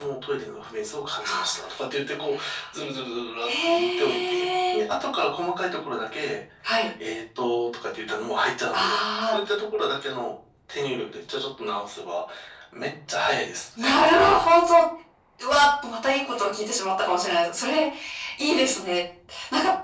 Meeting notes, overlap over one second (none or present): present